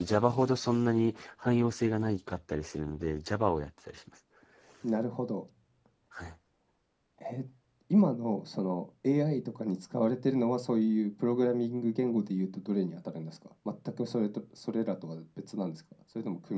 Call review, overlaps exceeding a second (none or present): none